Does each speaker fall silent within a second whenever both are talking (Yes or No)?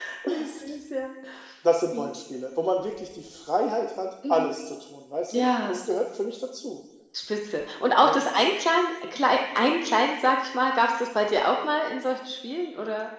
Yes